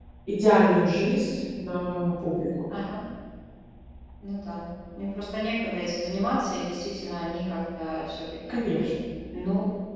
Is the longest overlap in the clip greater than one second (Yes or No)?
No